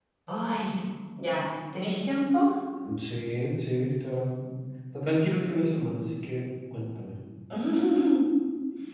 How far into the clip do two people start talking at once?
none

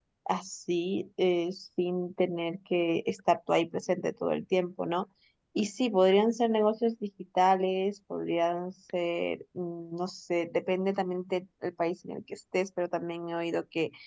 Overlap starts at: none

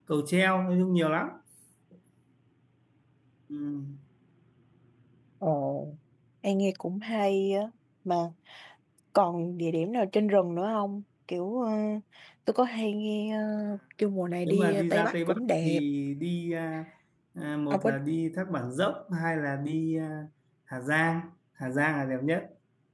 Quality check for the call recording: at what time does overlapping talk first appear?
14 s

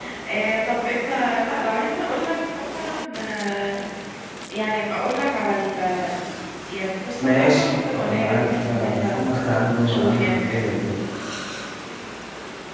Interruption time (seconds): 7 s

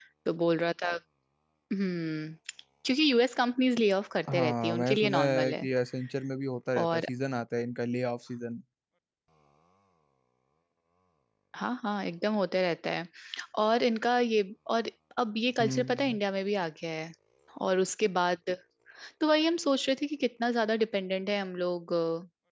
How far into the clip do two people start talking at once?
4 s

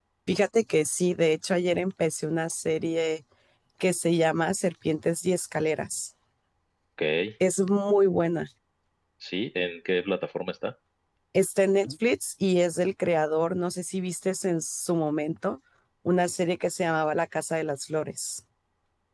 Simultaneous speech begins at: none

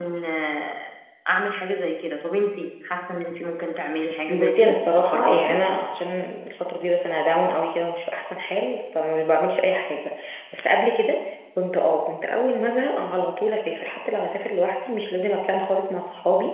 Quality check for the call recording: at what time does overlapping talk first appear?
4 s

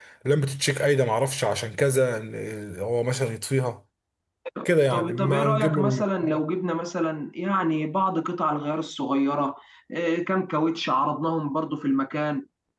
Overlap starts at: 5 s

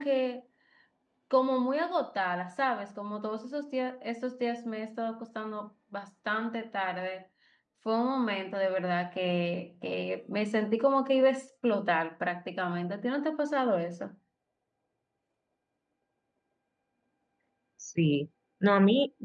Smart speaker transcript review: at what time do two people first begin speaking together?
none

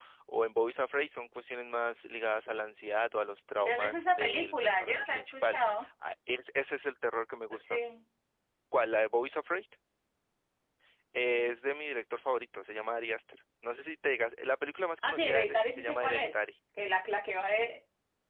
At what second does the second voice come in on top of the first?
4 s

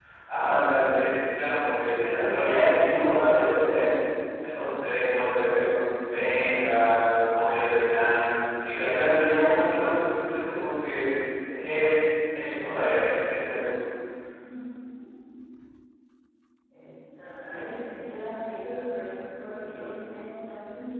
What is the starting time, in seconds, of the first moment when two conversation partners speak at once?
none

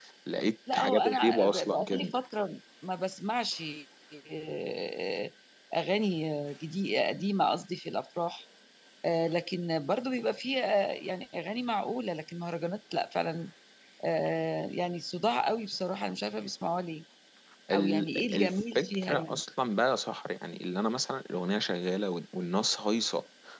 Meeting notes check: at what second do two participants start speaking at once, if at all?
1 s

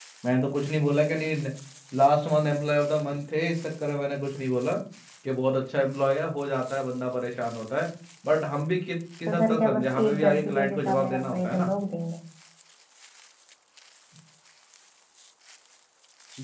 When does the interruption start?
9 s

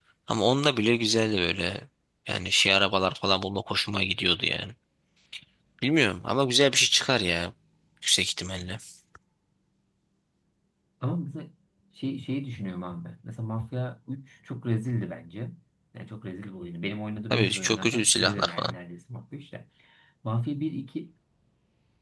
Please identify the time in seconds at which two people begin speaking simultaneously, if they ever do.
17 s

